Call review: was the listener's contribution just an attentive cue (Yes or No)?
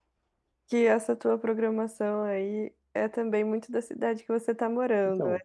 No